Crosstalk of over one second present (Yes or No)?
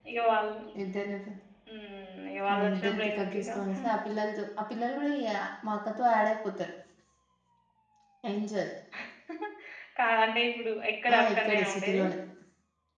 Yes